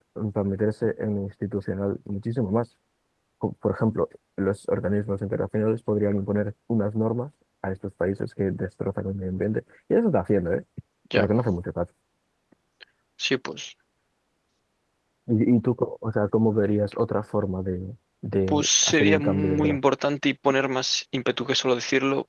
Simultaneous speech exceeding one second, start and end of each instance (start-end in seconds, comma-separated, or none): 18.5-19.8